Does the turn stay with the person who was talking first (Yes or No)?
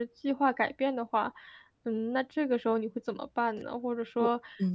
Yes